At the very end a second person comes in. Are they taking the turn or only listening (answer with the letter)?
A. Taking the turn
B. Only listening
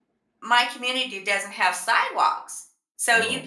B